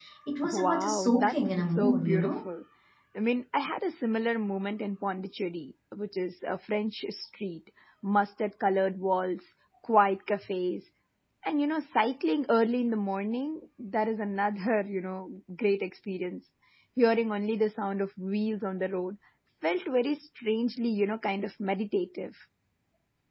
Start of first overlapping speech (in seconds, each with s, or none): 0.5 s